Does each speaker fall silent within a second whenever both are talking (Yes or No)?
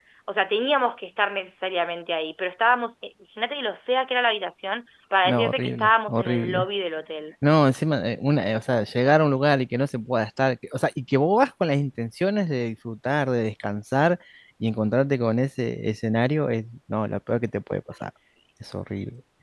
No